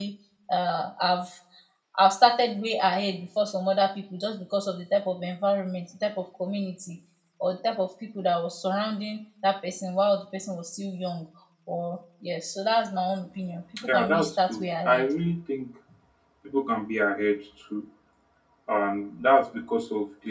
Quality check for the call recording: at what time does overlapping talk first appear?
13.8 s

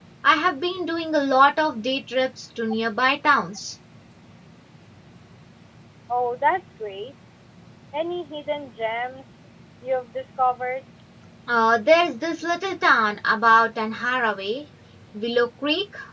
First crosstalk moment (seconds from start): none

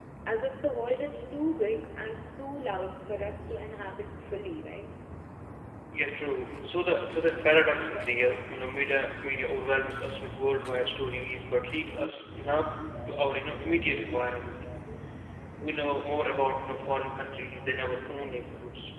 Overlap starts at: none

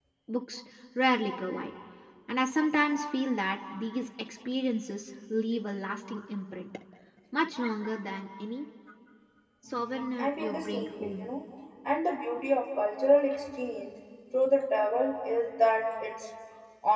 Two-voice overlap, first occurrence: 9.7 s

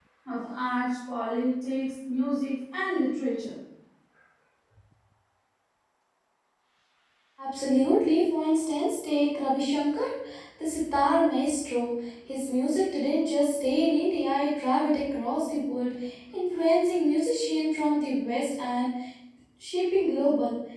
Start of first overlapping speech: none

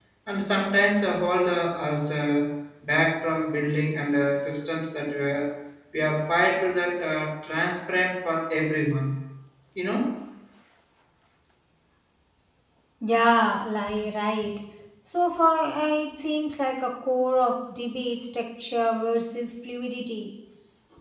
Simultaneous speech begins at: none

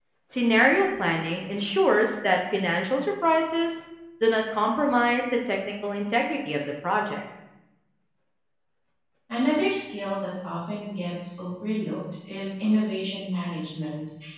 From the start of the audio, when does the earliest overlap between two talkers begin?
none

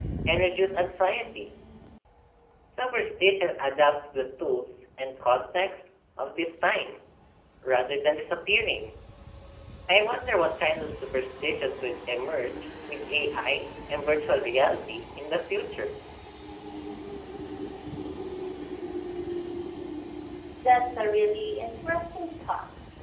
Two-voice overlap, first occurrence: none

